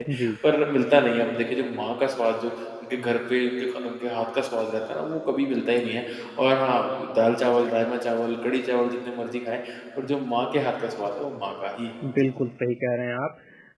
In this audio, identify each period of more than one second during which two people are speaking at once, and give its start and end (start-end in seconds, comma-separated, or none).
none